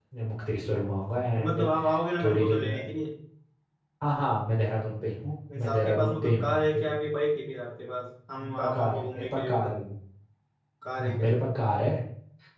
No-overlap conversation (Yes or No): No